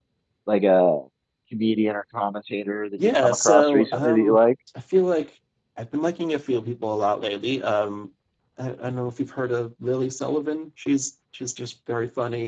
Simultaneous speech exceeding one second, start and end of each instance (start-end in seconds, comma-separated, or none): 3.0-4.4